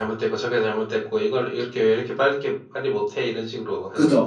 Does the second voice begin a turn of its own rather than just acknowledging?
Yes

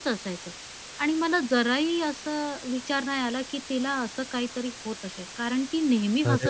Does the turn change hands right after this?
No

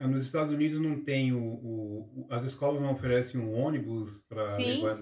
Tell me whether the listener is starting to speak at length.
Yes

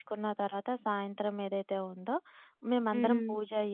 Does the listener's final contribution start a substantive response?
No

